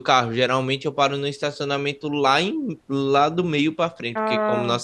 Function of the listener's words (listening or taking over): listening